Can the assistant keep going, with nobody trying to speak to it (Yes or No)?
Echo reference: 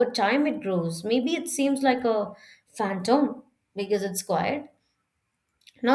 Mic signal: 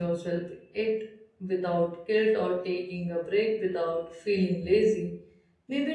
No